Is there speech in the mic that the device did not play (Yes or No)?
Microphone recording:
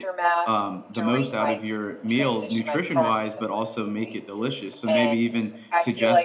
Yes